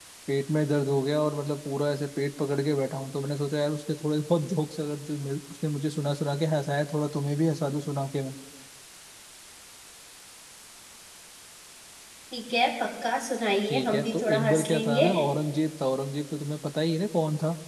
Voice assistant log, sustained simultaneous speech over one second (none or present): present